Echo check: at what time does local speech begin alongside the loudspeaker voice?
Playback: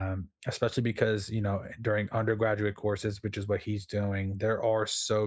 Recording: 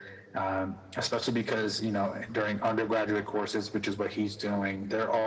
none

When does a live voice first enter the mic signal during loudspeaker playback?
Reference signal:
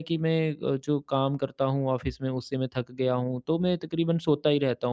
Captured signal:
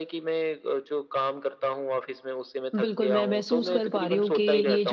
3 s

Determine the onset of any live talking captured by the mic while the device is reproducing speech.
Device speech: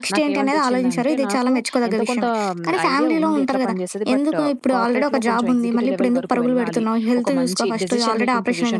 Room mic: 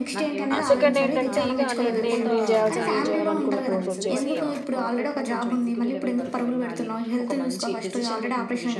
1 s

